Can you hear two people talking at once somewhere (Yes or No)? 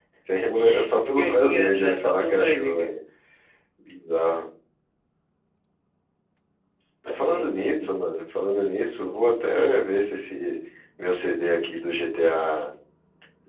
Yes